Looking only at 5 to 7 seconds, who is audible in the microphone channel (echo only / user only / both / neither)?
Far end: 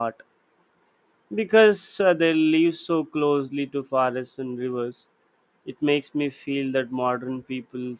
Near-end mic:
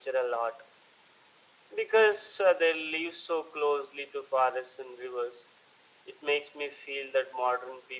echo only